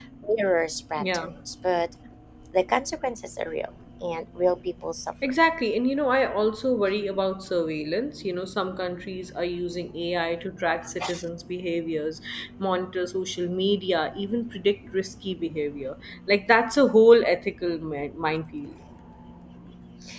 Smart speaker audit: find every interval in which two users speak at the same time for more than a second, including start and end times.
none

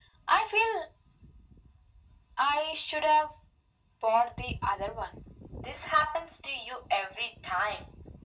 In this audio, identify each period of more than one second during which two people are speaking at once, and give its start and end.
none

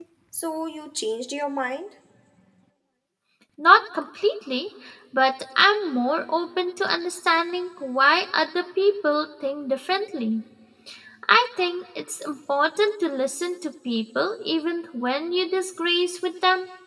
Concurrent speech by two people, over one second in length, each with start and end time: none

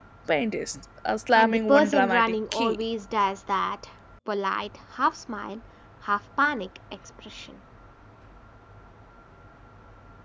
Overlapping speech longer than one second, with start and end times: 1.4-2.8

